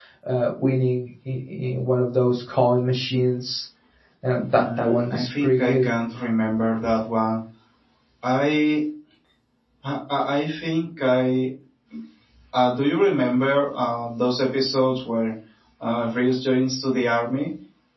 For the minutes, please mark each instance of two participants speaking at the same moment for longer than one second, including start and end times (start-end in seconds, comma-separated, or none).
4.6-5.8